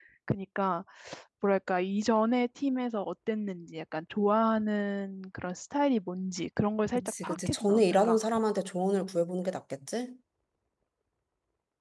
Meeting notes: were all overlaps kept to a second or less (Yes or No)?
No